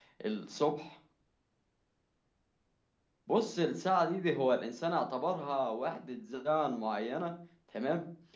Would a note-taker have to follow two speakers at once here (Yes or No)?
No